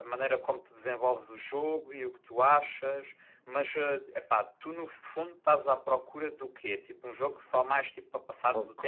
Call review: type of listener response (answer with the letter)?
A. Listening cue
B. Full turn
B